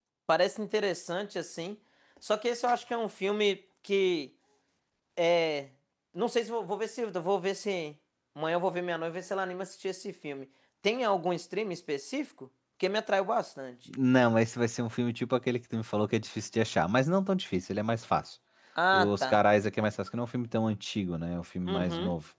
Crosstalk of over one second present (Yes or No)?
No